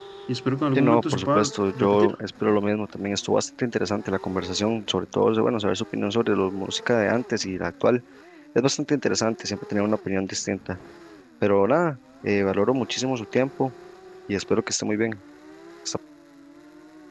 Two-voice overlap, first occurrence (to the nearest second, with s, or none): 1 s